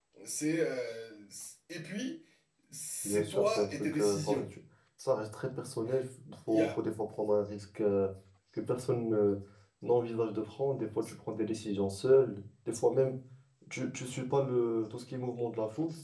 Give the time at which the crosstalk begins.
3.0 s

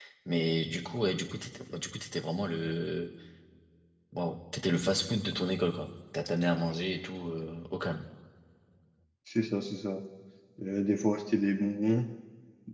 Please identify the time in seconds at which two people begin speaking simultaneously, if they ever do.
none

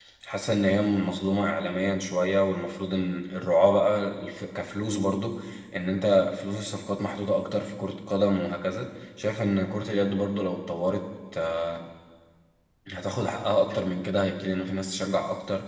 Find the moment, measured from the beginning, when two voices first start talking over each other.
none

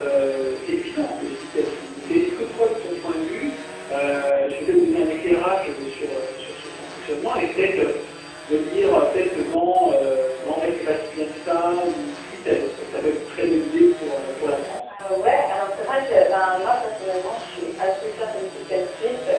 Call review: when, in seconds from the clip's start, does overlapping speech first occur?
none

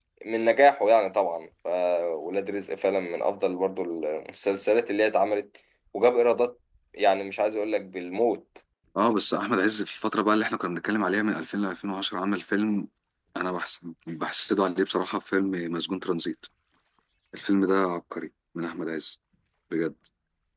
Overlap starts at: none

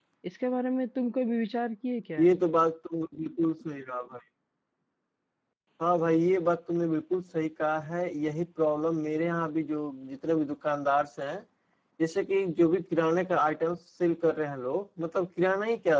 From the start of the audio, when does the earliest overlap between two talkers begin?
none

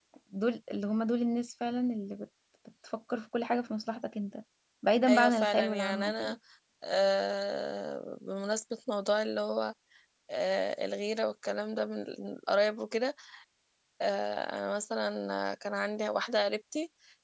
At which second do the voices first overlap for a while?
5.1 s

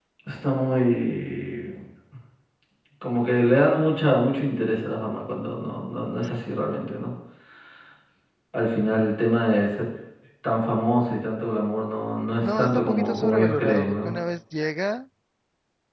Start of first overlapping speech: 12.4 s

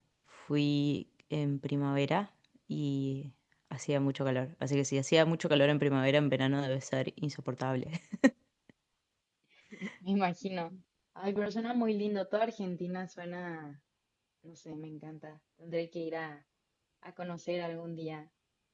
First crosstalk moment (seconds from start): none

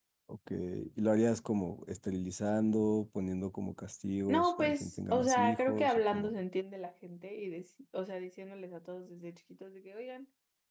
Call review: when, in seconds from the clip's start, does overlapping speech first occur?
4.3 s

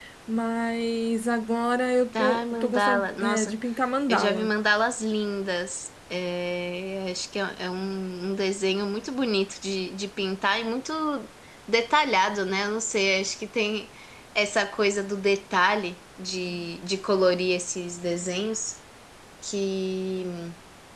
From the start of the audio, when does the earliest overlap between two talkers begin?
2.2 s

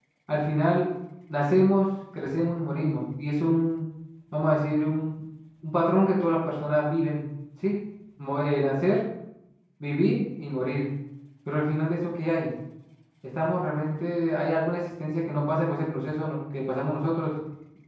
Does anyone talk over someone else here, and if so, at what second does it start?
none

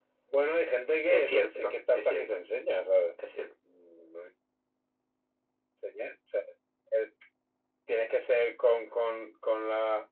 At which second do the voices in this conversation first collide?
1.1 s

